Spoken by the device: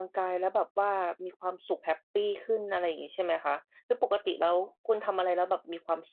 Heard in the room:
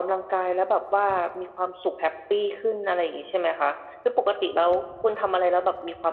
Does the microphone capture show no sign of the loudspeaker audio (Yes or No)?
No